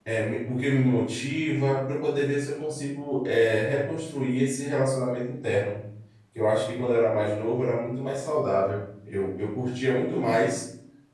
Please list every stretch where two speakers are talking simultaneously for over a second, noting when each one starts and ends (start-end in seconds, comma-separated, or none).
none